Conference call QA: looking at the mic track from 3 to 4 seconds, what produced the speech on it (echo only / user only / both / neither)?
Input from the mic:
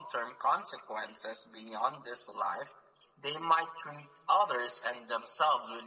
echo only